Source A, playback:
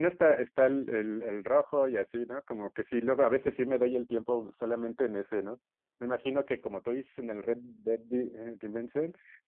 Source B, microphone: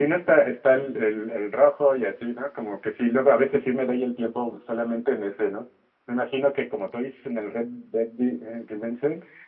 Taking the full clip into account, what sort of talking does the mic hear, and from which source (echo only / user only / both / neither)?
echo only